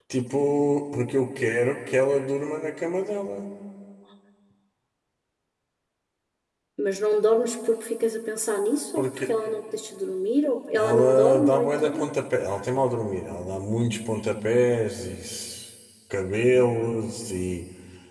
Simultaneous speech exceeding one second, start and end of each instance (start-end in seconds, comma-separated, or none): 10.8-12.0